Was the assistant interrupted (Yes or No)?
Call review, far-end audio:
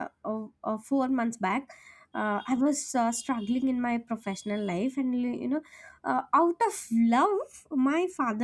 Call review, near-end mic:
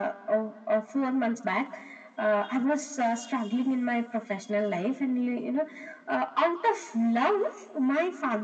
No